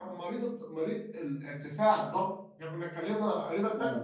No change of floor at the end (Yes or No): No